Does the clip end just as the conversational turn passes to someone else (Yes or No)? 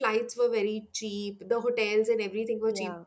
No